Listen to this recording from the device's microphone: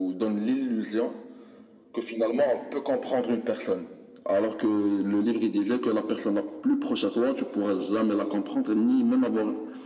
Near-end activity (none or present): none